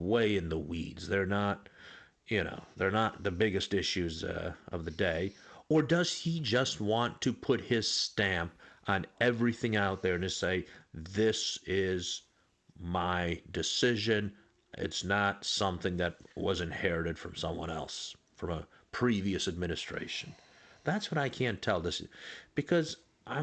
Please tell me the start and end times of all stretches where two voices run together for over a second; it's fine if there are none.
none

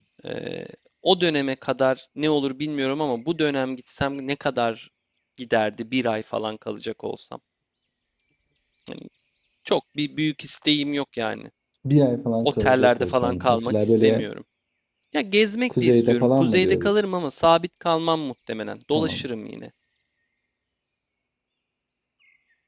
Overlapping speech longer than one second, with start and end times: 12.4-14.3, 15.7-16.9

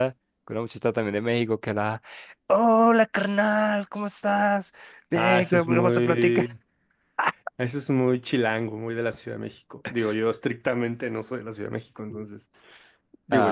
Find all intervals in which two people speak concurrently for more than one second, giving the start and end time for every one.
5.1-6.5

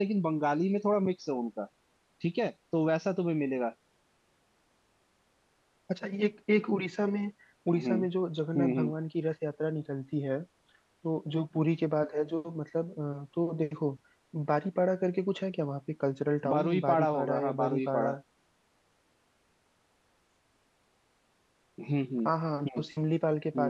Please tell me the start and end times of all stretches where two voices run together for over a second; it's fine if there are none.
16.5-18.1

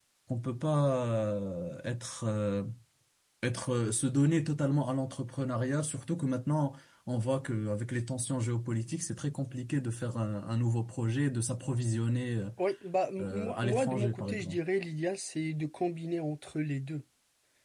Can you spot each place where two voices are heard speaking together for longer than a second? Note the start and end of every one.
13.2-14.6

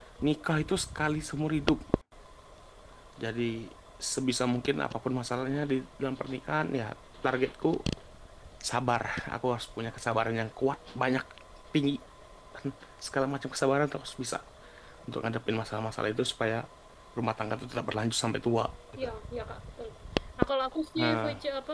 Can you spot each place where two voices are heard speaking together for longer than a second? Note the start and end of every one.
none

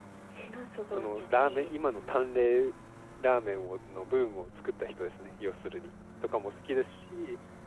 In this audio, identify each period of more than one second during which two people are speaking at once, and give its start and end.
0.9-2.1

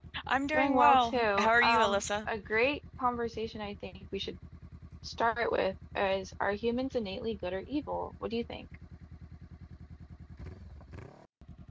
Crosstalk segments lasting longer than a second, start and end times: 0.5-2.0

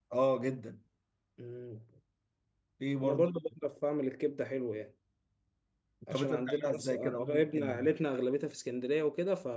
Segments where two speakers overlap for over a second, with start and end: 6.1-7.8

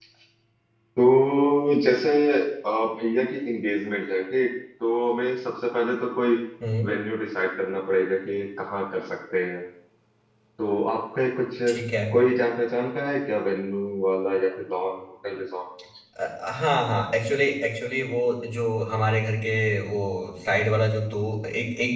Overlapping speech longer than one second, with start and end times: none

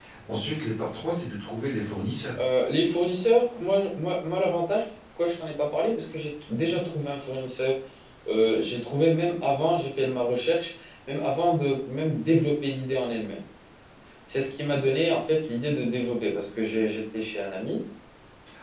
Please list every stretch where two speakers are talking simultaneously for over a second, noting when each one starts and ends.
none

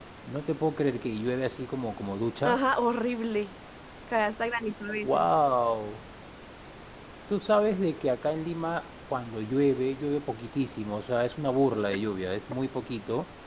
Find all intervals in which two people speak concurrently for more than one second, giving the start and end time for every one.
none

